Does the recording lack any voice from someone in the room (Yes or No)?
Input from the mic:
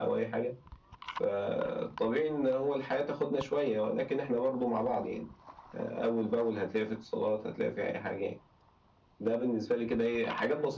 Yes